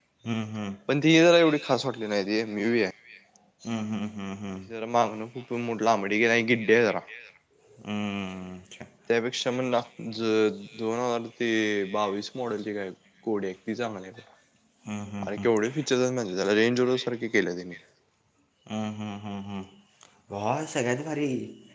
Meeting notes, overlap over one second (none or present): none